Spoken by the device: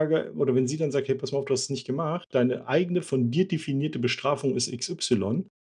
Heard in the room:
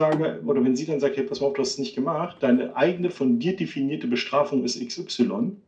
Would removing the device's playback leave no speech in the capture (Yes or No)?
Yes